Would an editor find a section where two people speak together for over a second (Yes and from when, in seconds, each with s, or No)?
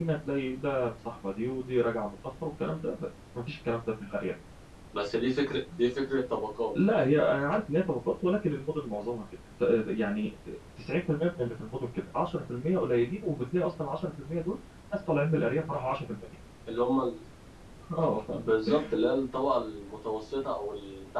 No